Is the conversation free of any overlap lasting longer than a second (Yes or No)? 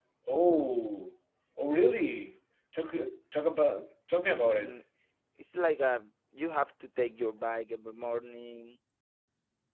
Yes